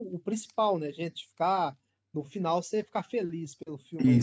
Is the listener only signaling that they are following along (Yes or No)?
No